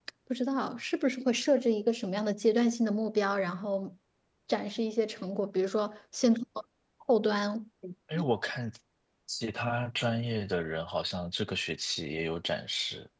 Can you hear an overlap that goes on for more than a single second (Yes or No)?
No